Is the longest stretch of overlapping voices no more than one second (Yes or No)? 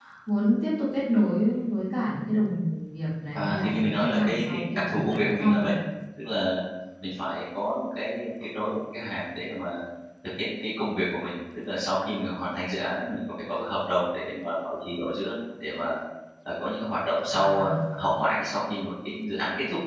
No